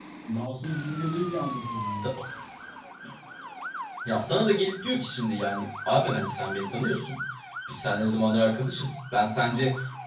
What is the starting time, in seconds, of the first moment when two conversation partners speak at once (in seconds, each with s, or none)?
none